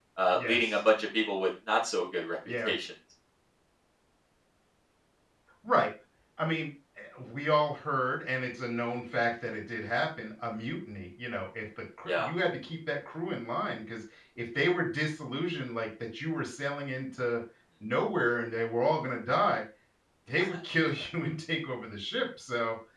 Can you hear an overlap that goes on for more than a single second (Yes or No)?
No